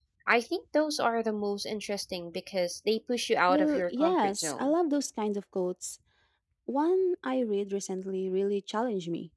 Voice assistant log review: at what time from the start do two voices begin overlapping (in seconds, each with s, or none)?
3.5 s